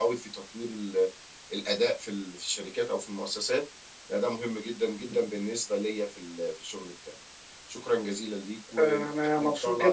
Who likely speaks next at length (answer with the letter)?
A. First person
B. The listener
B